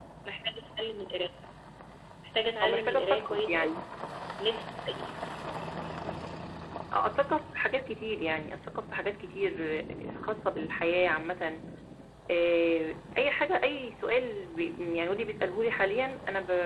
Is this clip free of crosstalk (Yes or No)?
No